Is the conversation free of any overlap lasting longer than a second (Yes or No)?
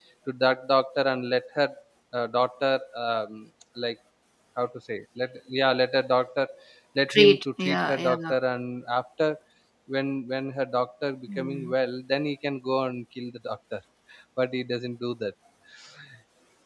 No